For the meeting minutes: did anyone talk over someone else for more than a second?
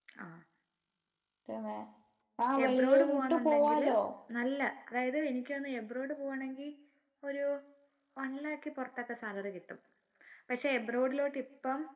Yes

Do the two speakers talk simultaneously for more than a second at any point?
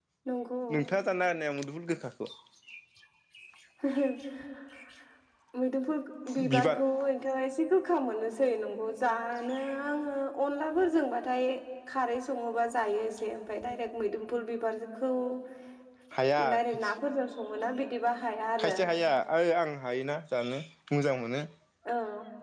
No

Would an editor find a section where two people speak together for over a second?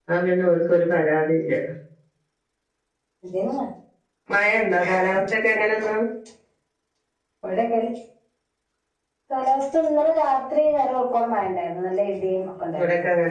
No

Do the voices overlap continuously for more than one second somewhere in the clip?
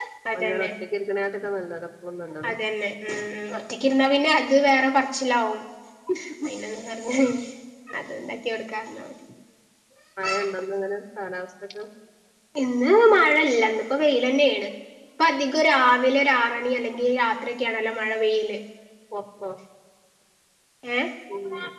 No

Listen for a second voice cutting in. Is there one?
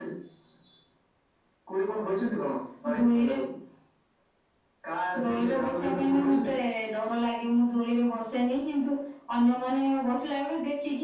Yes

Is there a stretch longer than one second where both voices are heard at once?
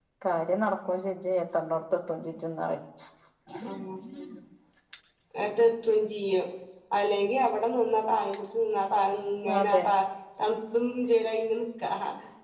No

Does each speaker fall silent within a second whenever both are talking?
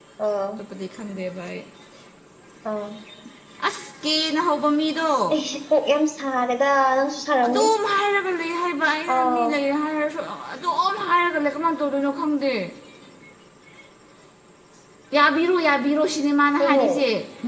Yes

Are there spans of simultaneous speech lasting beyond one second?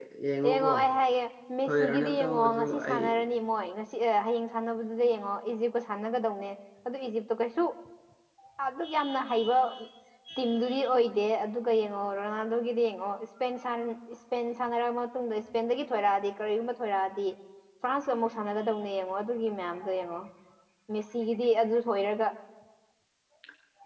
Yes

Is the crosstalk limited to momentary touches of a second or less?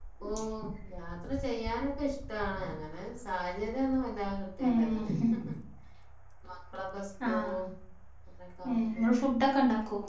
Yes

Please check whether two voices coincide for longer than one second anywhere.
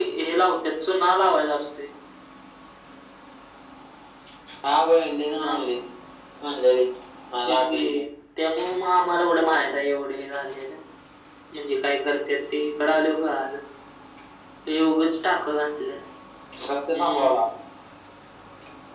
No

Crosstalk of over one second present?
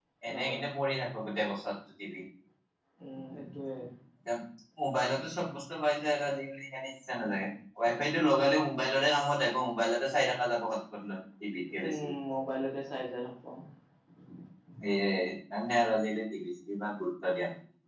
No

